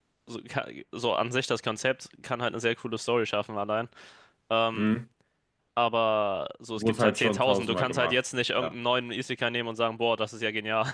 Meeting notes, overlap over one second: present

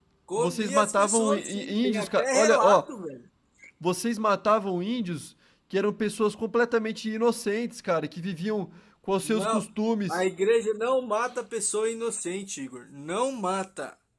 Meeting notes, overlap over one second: present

